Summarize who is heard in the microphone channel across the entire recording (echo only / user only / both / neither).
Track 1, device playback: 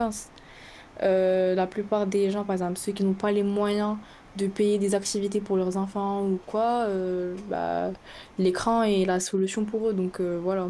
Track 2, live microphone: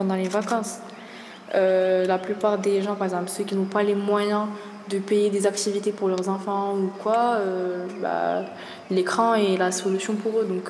echo only